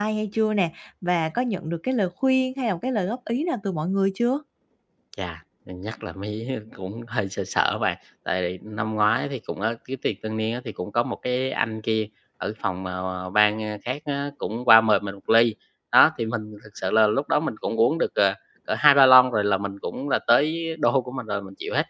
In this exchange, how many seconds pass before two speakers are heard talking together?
none

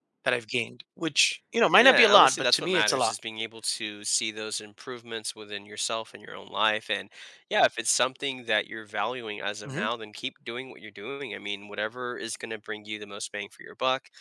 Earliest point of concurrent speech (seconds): 2 s

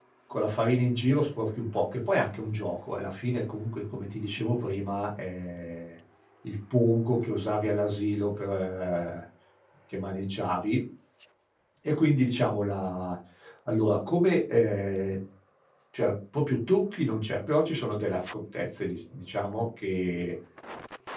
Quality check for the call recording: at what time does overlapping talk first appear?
none

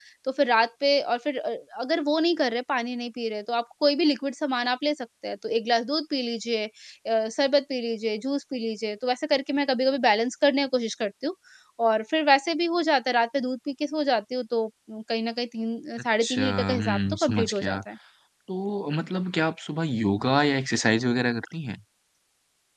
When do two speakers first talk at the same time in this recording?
16 s

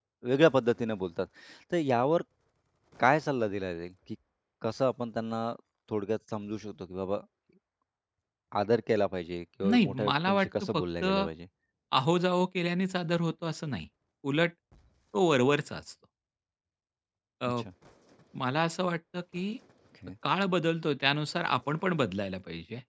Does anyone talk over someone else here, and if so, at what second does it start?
10 s

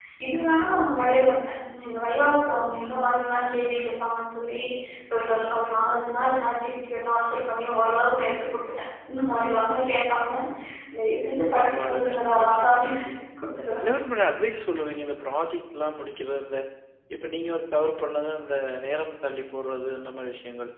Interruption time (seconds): 12 s

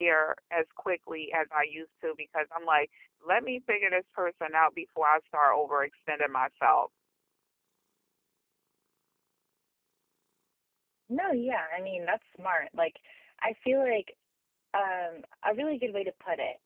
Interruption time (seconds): none

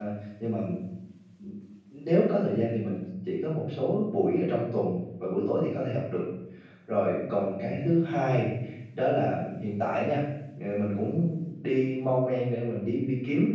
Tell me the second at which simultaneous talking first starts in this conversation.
none

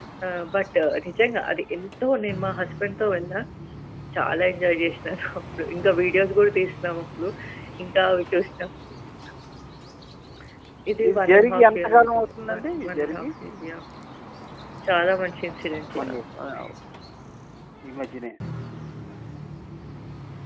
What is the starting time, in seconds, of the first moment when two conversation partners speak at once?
11 s

